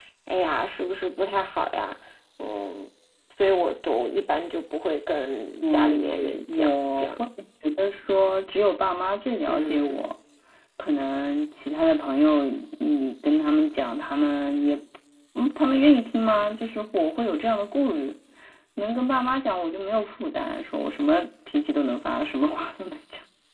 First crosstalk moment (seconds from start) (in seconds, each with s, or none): 5.6 s